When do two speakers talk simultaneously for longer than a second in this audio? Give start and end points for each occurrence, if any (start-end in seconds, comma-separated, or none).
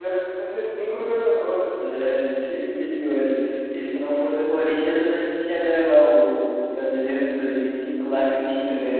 none